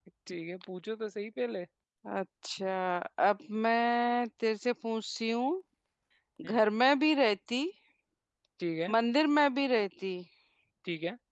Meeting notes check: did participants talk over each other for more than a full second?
No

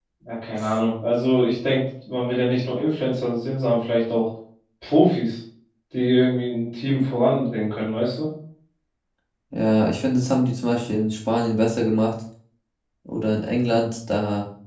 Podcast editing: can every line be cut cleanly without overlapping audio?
Yes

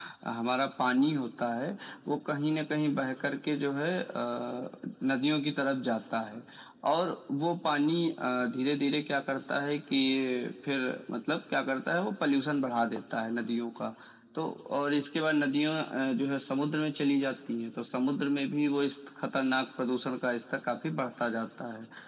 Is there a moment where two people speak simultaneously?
No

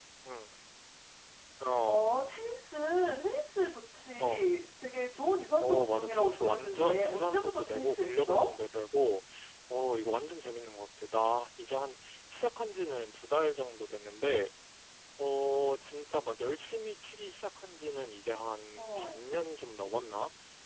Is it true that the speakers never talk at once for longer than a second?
No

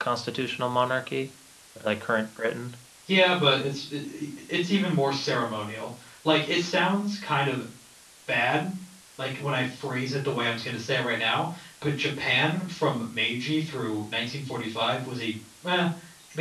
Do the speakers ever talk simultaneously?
No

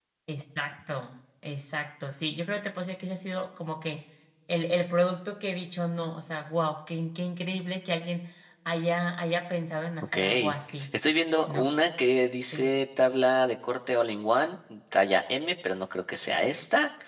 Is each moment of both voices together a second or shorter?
Yes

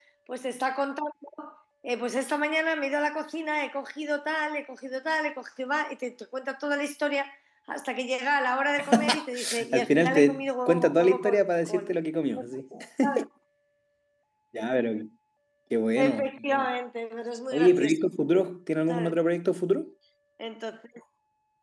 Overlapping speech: Yes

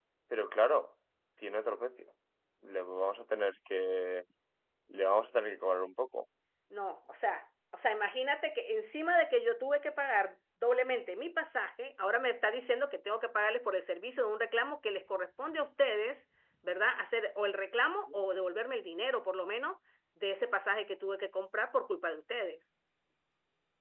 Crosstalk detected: No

